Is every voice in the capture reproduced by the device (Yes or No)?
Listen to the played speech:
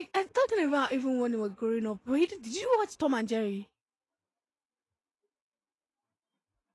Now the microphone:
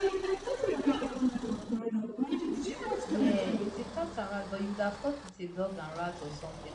No